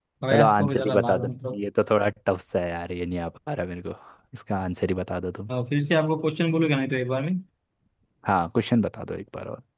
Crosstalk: present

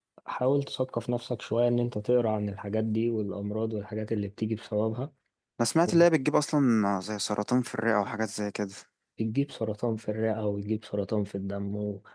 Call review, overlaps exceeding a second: none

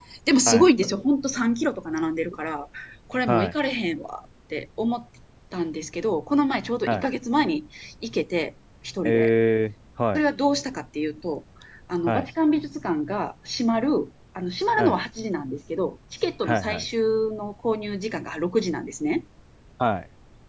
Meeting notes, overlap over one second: none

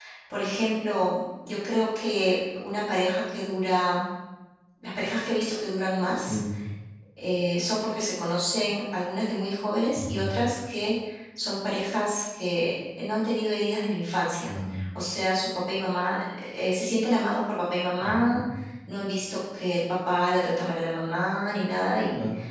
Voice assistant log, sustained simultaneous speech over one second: none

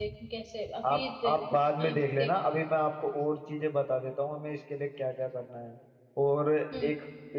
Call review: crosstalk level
present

